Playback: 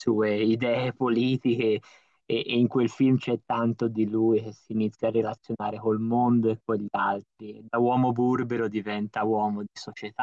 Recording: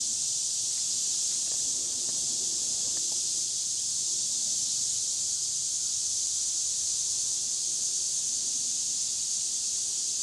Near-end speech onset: none

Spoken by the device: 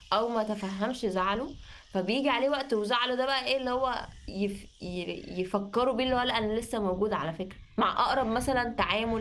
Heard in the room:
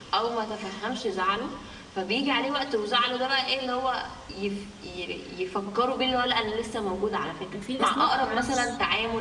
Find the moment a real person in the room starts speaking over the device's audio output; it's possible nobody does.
7.5 s

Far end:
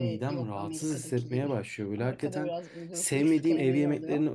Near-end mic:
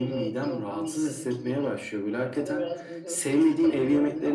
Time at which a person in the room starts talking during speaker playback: none

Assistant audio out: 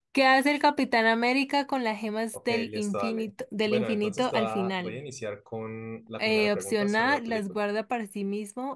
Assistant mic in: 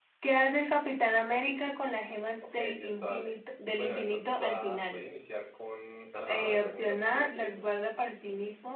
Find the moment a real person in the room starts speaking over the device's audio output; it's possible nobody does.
6.1 s

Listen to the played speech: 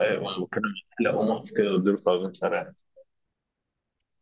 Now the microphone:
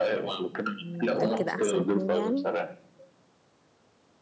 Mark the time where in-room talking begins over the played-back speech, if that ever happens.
0.8 s

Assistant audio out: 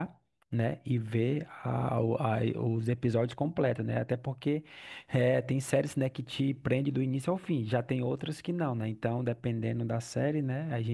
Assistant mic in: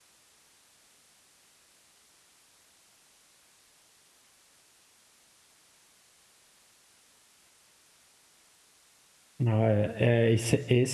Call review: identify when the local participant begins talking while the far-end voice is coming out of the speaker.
9.4 s

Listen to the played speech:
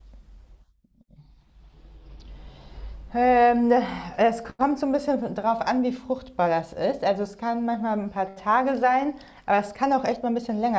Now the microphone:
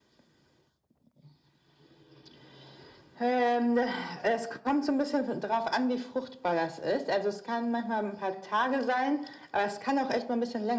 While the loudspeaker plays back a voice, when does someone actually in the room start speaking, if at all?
none

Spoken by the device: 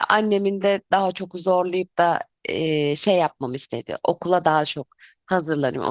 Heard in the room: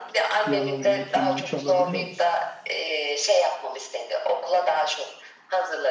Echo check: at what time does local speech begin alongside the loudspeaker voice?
0.4 s

